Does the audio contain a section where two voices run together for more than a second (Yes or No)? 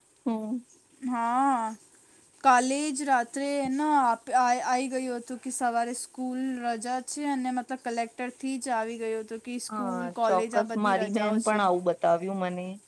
Yes